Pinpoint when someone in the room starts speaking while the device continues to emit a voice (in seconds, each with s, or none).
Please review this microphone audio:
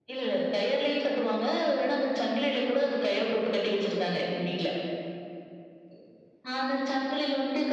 none